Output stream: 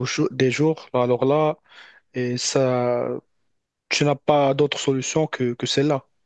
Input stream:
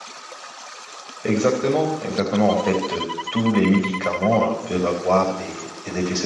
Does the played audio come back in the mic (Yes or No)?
No